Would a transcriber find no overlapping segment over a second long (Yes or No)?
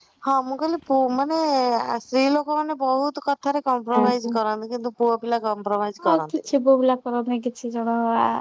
Yes